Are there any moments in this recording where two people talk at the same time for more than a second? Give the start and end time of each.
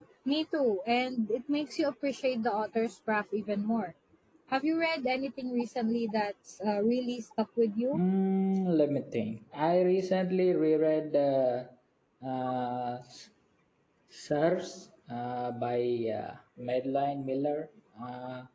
none

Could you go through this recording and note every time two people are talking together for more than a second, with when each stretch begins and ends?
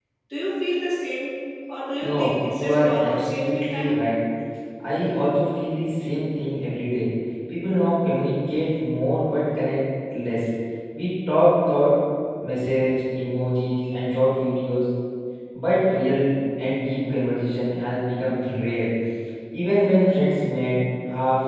2.0-3.9

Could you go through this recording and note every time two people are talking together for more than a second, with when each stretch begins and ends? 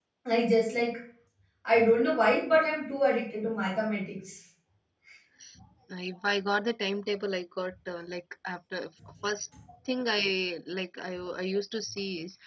none

